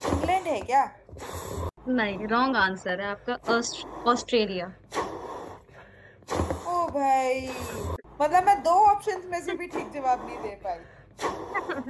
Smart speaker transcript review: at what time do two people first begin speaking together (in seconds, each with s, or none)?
none